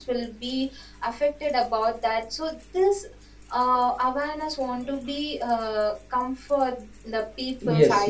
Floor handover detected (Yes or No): Yes